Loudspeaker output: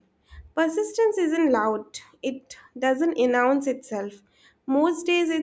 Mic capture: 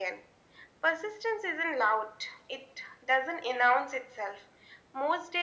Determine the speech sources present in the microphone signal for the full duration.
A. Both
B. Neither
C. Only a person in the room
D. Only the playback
D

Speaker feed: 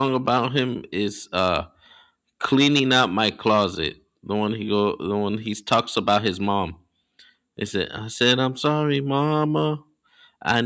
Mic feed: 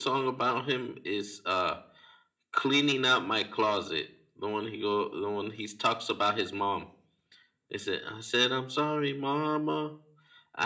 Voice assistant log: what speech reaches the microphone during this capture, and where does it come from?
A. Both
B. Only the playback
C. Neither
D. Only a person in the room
B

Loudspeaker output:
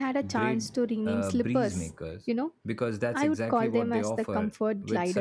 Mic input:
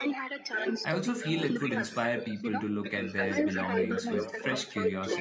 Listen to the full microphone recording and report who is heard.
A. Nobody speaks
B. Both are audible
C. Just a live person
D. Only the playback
B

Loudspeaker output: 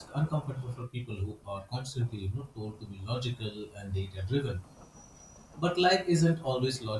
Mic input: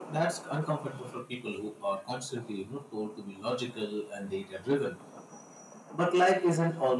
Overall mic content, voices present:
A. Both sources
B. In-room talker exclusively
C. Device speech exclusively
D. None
C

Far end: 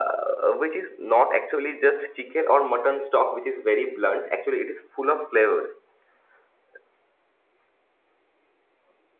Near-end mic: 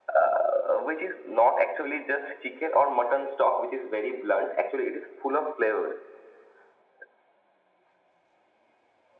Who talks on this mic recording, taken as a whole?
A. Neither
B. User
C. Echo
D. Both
C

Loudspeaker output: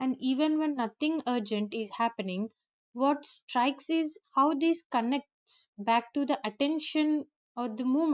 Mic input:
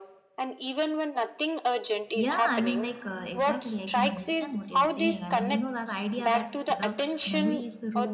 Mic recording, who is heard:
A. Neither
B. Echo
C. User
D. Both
D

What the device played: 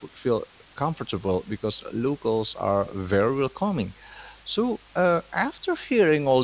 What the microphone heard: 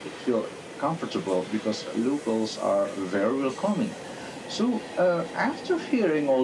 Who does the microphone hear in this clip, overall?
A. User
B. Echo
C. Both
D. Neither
B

